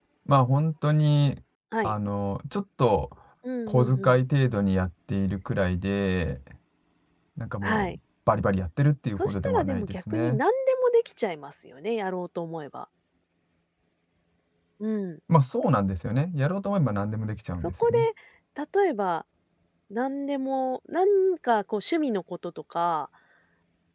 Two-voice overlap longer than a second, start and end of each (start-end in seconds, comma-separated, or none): 9.2-10.4